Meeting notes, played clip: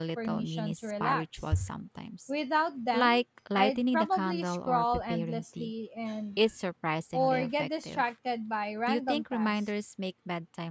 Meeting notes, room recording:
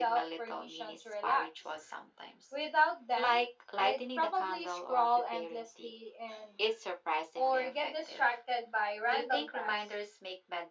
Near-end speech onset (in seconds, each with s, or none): none